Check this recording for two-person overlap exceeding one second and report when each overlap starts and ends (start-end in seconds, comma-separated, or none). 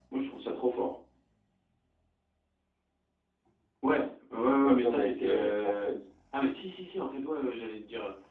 4.6-5.9